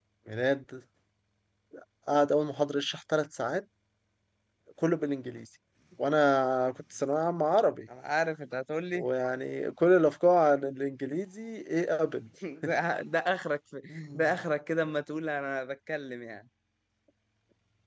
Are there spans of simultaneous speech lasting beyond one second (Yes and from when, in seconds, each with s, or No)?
No